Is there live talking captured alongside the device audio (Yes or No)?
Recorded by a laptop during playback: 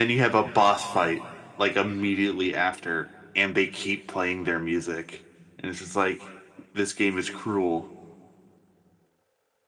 No